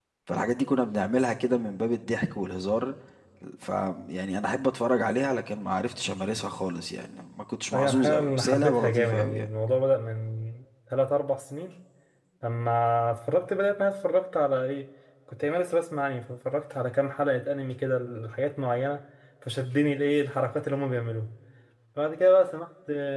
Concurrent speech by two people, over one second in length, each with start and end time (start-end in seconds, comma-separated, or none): 7.7-9.5